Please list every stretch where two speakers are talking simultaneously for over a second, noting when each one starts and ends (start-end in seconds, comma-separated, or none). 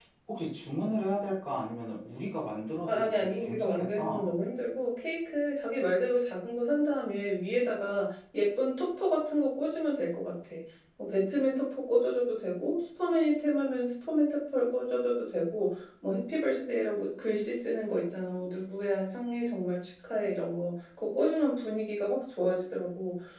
2.8-4.3